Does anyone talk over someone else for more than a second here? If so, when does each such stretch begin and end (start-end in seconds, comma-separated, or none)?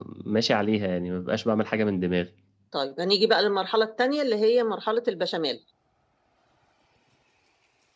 none